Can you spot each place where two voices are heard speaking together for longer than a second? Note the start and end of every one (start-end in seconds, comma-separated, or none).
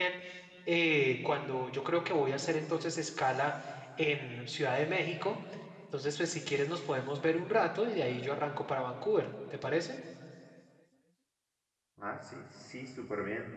none